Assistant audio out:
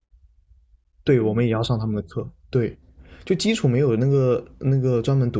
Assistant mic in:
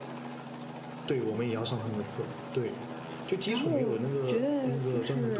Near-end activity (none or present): present